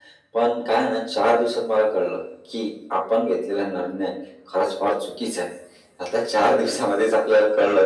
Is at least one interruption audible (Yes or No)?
No